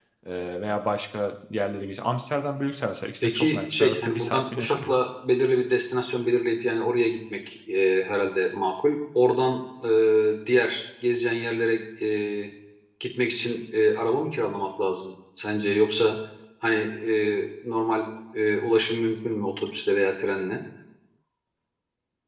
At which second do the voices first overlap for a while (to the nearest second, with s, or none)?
3 s